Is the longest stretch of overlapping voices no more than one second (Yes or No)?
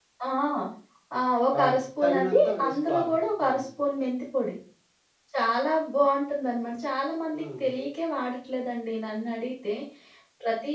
No